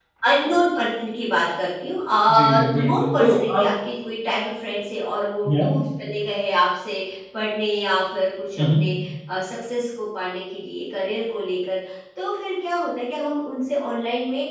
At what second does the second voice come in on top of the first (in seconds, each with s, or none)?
2.3 s